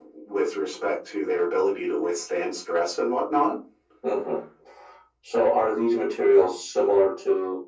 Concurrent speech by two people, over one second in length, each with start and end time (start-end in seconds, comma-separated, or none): none